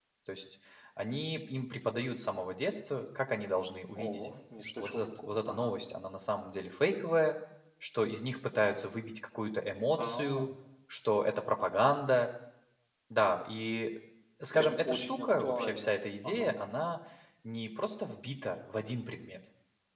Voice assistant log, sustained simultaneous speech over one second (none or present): present